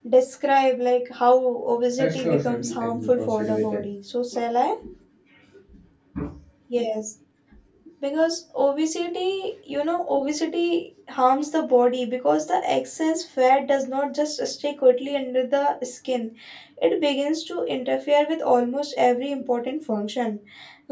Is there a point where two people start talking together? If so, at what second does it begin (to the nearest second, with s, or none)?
2 s